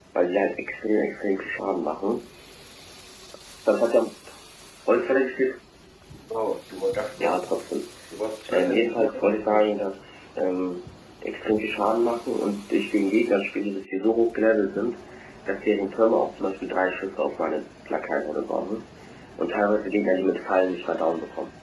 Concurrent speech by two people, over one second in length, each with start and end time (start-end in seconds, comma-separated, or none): 8.5-9.7